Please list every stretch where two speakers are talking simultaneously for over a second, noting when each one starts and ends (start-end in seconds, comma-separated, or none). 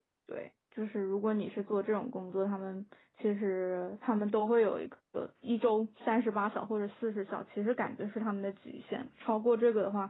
none